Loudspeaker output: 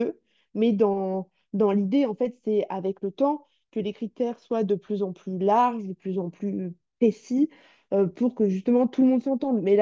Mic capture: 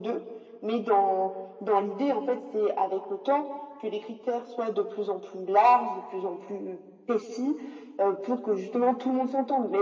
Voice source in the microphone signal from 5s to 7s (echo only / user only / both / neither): echo only